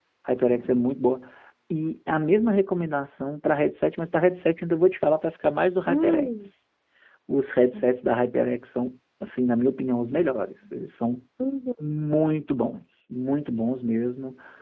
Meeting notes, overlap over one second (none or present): none